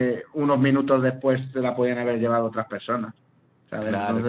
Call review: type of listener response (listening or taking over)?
taking over